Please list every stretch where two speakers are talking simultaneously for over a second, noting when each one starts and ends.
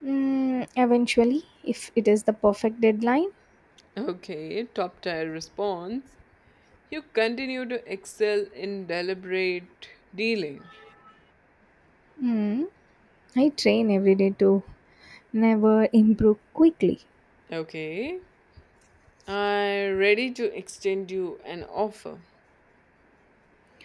none

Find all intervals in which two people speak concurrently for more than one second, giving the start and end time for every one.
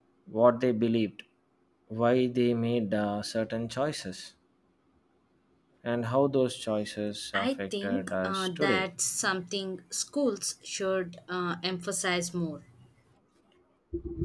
7.3-8.9

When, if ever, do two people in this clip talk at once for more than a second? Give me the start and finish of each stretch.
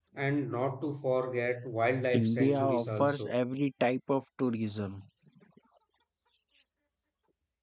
2.1-3.3

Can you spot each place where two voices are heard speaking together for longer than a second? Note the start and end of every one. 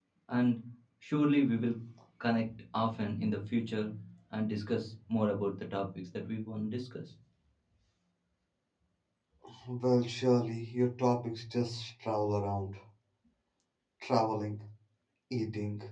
none

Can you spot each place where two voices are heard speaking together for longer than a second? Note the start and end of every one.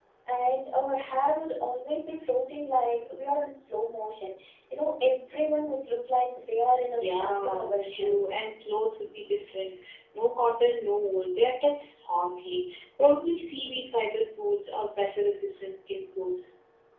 7.0-8.2

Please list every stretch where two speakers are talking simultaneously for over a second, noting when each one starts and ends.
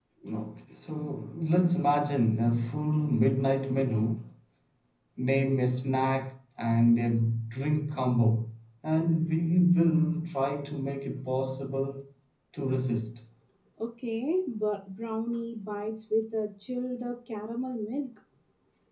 none

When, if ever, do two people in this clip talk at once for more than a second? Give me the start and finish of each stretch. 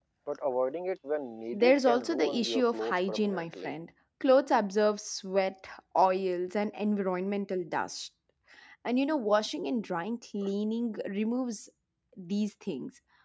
1.5-3.7

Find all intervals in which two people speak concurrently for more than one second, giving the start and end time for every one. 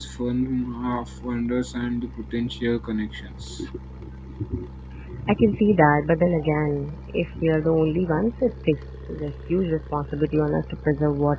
none

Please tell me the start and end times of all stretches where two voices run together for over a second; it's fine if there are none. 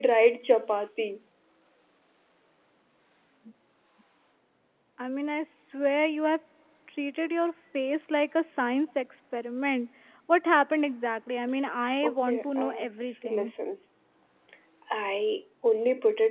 12.0-13.5

